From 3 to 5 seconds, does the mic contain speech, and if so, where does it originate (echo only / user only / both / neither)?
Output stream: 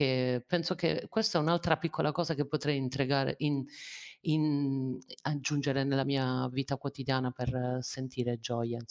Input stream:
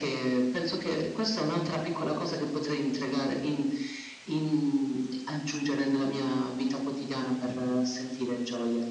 echo only